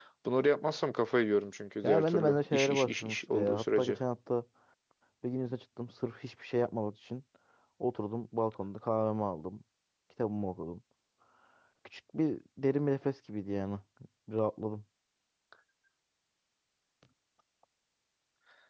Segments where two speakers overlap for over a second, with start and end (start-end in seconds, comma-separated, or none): 1.8-4.0